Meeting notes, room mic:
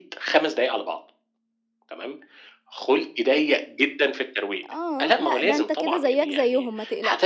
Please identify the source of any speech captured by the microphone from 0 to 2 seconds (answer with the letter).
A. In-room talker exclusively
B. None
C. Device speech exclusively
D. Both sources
C